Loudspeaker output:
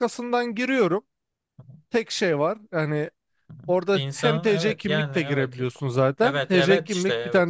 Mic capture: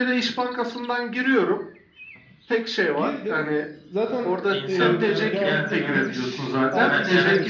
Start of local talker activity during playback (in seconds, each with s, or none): 2.9 s